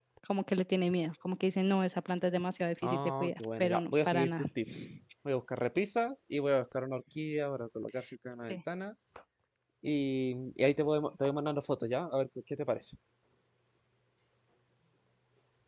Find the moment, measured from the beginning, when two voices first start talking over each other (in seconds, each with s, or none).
2.8 s